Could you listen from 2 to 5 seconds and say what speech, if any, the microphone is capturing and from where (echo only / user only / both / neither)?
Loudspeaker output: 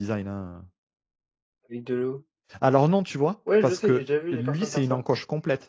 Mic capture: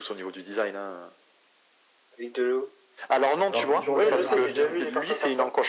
both